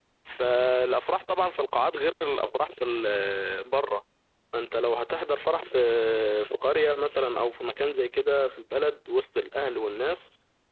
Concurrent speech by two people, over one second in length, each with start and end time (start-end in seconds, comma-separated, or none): none